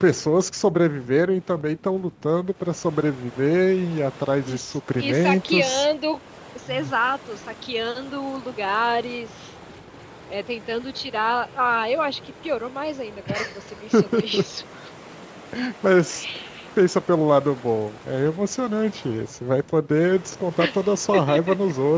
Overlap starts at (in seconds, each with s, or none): 4.5 s